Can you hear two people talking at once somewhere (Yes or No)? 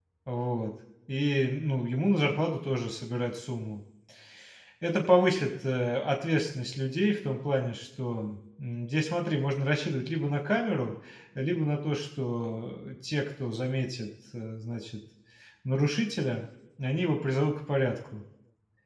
No